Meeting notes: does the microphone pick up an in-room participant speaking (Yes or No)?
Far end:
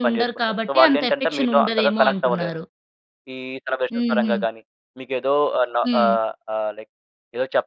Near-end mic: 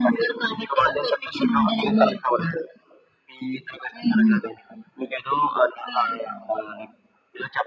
No